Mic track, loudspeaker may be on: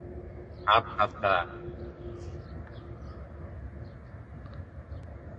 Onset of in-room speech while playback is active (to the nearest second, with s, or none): 1 s